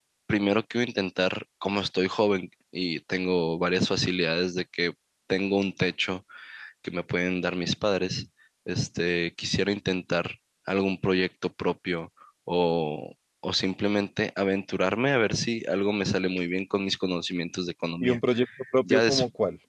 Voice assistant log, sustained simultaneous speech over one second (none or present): none